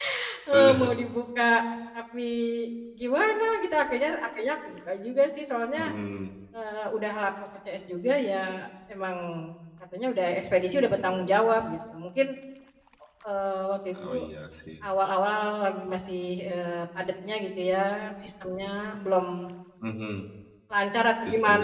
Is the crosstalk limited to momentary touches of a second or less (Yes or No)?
Yes